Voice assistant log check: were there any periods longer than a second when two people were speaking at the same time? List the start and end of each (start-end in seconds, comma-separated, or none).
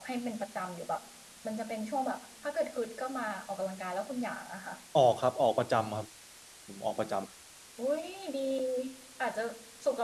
none